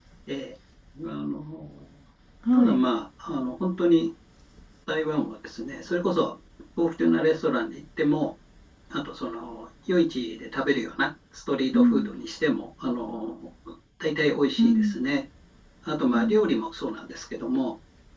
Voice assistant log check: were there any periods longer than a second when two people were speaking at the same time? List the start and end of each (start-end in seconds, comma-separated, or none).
none